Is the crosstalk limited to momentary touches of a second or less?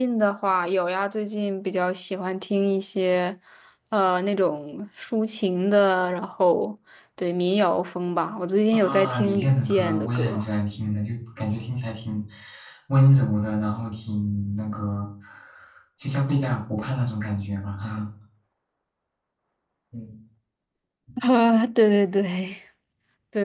No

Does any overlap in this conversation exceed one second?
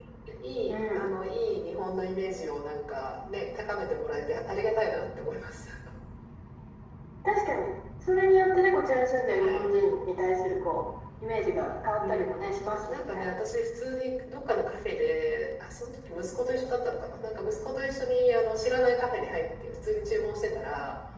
No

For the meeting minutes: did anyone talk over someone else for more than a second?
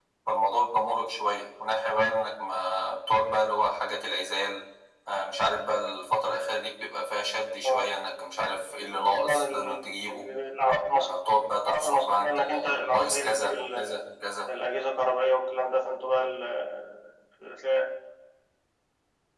Yes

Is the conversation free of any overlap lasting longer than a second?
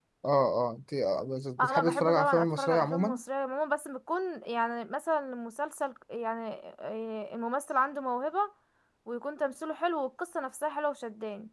No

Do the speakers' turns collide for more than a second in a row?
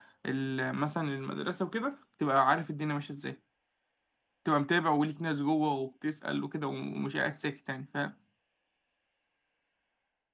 No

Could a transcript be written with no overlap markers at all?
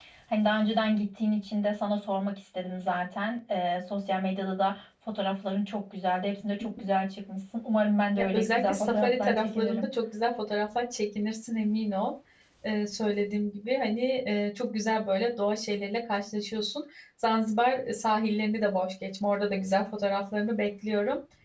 No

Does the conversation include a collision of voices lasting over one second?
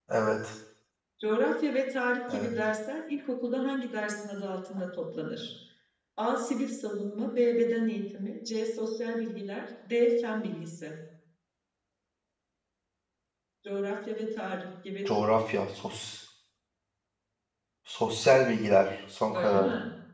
No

